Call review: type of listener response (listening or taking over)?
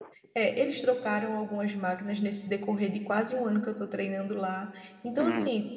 listening